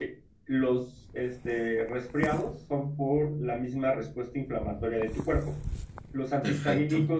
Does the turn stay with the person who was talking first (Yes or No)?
Yes